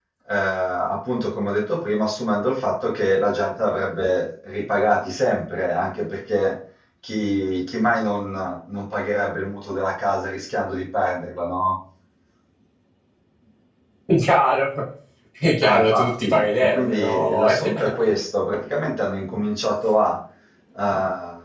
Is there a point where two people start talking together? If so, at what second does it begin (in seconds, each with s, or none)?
15.6 s